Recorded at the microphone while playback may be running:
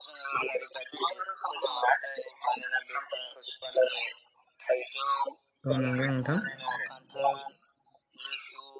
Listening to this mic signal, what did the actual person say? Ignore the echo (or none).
औ नंगौ नोंथां।